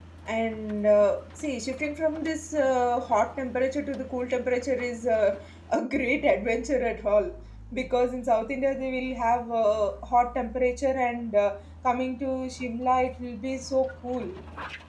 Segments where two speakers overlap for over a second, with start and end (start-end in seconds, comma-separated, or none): none